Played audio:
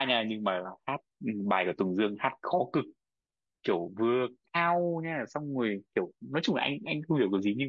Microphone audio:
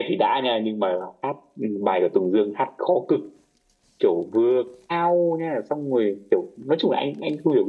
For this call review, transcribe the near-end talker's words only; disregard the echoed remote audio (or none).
none